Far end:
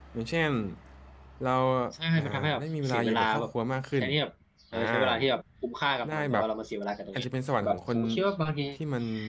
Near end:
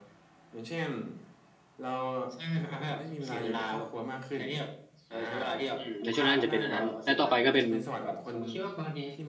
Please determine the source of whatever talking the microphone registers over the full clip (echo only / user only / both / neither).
both